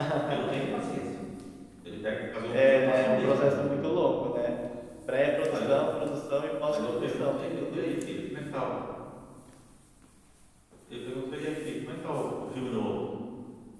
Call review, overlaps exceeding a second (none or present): present